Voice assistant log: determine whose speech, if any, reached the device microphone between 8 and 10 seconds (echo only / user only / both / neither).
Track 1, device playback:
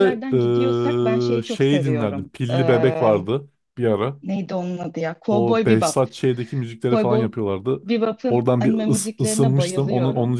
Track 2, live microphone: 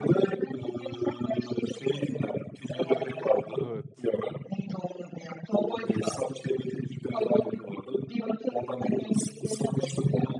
echo only